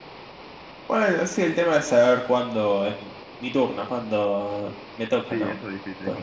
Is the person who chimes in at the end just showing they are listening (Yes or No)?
No